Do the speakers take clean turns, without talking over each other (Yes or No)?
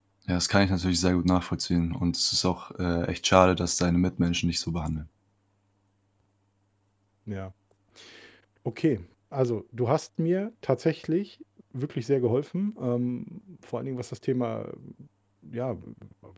Yes